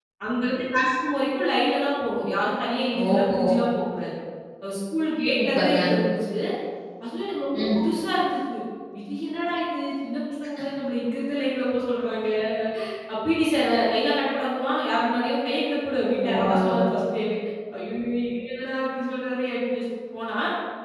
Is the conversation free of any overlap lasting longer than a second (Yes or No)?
Yes